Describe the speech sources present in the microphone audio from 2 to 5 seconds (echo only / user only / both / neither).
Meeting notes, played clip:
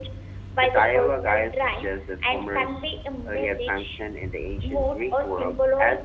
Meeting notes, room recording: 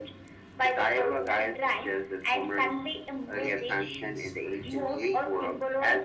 both